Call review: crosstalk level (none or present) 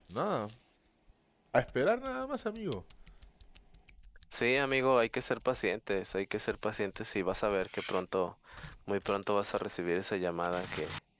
none